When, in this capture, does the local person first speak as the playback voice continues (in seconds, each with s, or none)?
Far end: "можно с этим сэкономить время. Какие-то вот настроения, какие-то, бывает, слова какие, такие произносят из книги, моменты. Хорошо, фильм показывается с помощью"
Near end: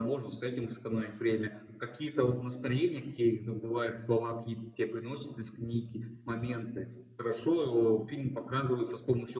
none